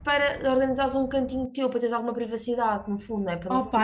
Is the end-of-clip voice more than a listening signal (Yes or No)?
Yes